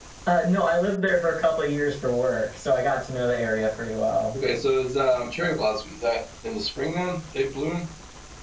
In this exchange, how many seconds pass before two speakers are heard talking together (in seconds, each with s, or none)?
none